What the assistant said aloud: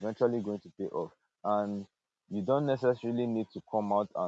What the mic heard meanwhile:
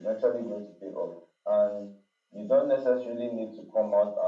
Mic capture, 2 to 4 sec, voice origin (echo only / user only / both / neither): echo only